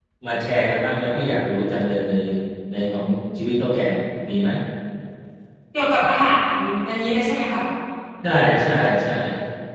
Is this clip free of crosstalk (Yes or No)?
Yes